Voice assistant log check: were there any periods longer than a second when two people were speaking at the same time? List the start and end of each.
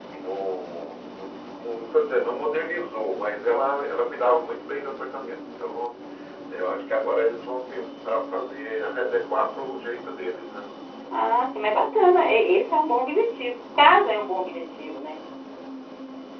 none

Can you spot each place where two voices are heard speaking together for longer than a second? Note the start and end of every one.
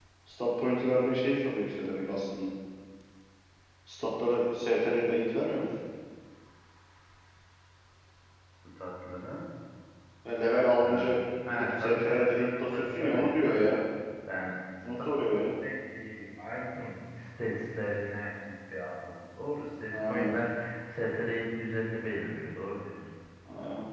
11.5-13.7

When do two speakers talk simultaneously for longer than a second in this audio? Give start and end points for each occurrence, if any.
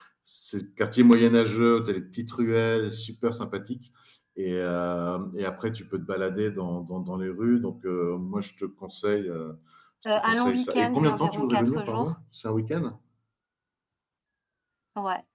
10.3-12.1

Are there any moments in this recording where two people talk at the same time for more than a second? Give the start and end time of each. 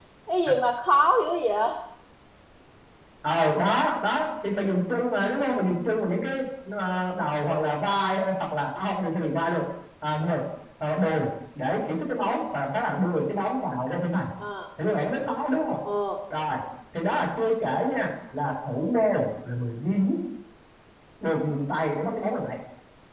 none

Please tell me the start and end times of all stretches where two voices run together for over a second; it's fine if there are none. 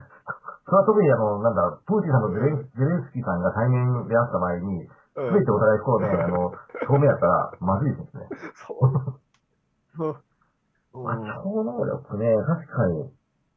none

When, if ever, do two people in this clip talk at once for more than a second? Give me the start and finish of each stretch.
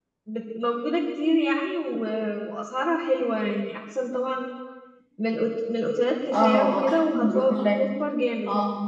6.3-7.8

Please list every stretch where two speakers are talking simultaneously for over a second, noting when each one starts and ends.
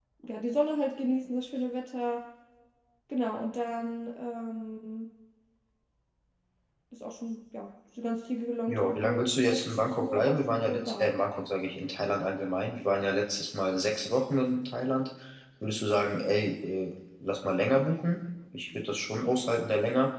8.7-11.2

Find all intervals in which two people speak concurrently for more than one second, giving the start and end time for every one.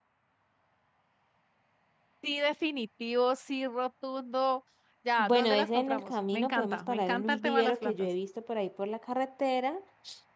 5.2-8.1

